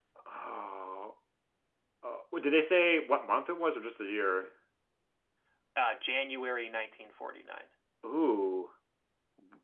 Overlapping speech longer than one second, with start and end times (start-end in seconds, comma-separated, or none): none